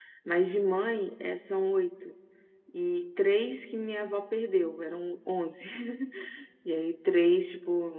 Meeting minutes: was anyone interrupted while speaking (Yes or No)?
No